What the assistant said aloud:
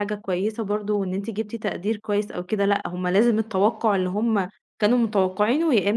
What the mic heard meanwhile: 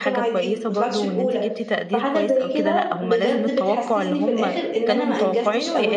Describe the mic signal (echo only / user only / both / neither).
both